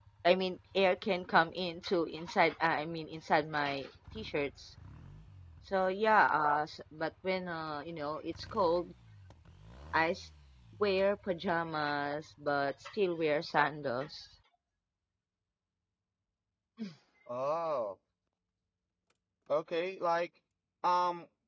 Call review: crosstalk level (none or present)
none